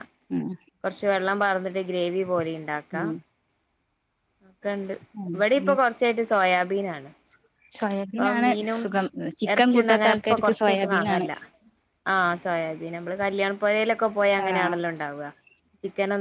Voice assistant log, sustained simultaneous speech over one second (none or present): present